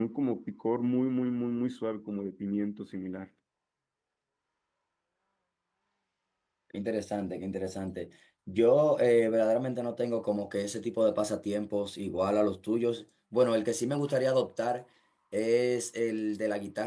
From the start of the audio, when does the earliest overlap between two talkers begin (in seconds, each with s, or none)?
none